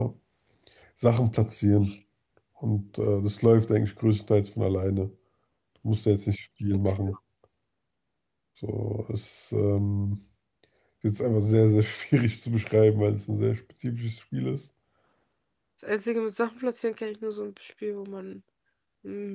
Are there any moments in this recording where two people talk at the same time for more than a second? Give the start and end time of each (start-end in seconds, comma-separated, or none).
none